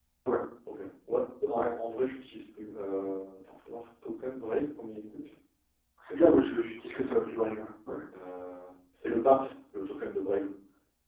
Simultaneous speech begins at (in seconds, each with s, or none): none